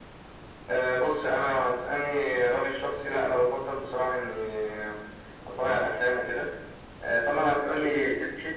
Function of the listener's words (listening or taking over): taking over